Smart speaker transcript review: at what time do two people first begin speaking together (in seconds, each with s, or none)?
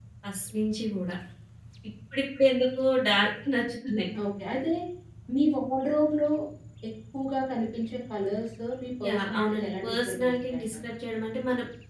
9.0 s